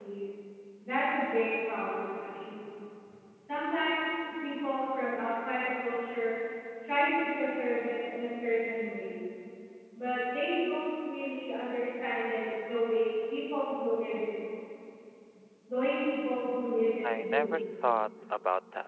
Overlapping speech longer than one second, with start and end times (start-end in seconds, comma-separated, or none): none